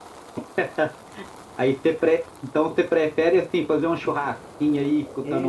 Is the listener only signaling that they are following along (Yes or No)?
No